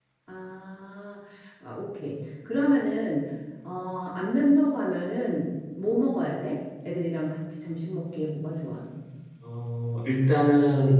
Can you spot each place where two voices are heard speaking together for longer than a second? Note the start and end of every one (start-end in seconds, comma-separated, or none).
none